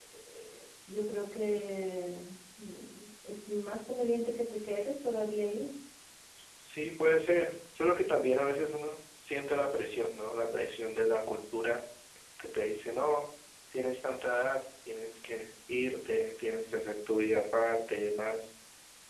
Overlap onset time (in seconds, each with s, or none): none